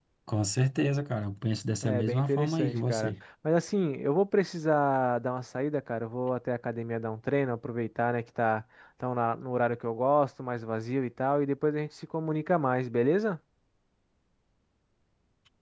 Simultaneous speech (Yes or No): Yes